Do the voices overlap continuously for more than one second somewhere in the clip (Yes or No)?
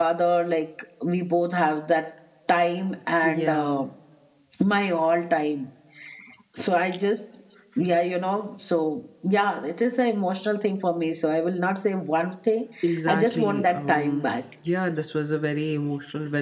Yes